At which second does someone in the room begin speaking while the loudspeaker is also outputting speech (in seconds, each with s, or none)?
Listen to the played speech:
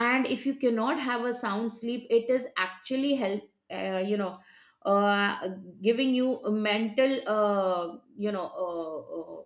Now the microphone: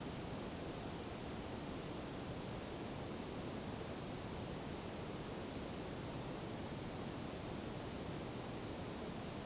none